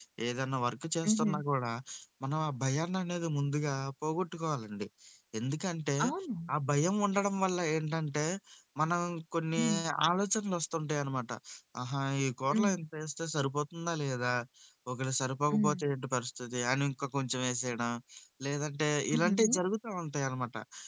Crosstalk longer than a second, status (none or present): none